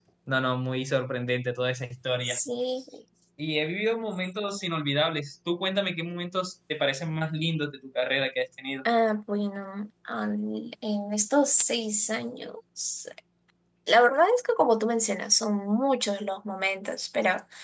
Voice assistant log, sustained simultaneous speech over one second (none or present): none